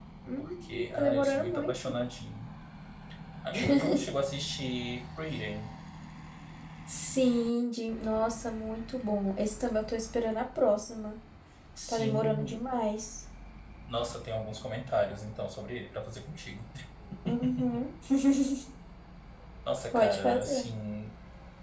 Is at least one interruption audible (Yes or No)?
Yes